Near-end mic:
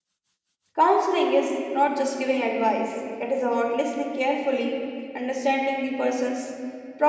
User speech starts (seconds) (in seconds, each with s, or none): 0.8 s